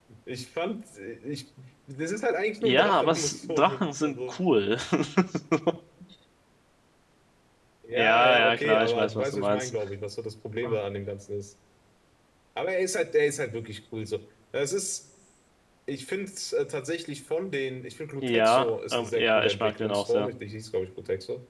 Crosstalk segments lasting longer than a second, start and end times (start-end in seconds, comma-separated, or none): 2.6-4.4, 7.9-9.7, 18.2-20.3